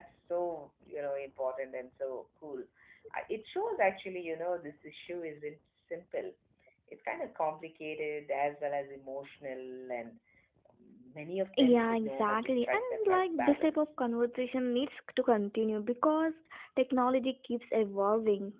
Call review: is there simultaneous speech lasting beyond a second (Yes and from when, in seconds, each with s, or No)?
Yes, from 11.6 s